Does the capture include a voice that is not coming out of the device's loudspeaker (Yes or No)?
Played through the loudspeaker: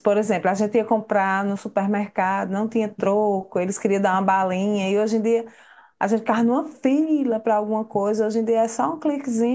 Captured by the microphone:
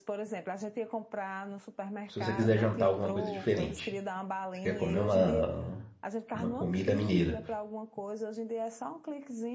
Yes